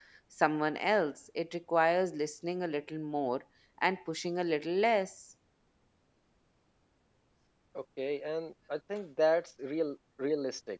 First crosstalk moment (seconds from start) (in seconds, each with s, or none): none